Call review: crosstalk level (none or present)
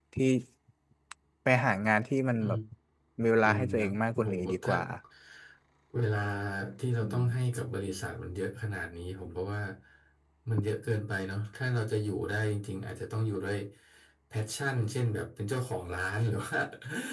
present